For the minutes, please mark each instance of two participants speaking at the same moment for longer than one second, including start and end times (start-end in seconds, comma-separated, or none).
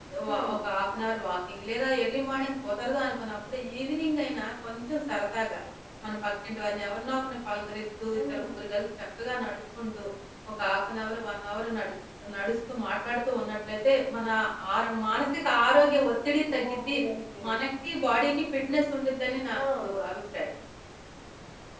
none